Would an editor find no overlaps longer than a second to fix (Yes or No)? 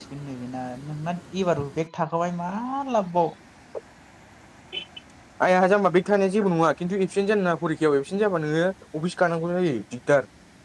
Yes